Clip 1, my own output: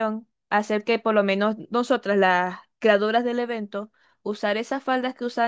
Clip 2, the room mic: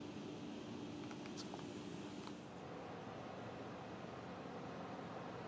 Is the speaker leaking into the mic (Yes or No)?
No